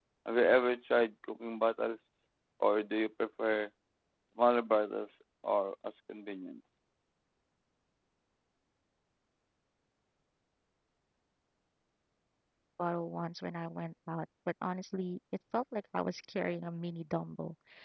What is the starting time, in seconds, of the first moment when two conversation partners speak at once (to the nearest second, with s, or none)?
none